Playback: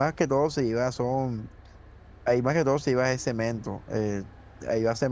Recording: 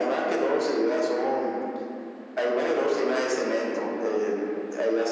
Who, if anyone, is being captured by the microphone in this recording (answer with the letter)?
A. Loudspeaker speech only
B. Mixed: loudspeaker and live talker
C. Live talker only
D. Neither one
A